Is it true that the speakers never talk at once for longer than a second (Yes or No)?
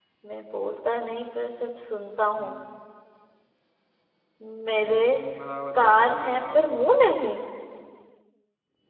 No